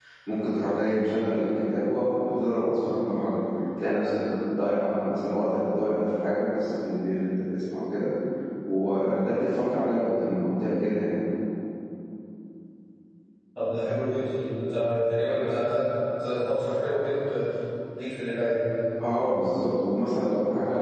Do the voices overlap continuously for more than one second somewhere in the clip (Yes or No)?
No